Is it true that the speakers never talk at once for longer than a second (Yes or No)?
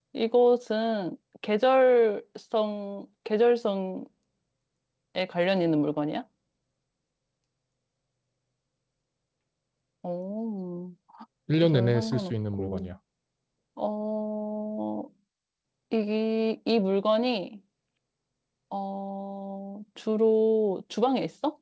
No